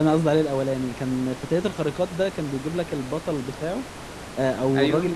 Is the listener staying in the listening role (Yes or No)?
Yes